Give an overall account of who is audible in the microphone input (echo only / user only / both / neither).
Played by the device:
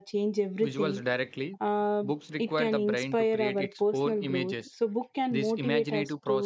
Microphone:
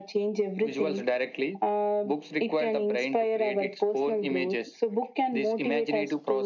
echo only